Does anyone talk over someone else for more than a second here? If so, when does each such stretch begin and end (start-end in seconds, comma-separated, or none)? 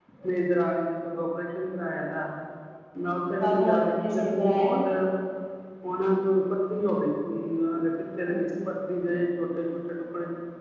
3.4-4.7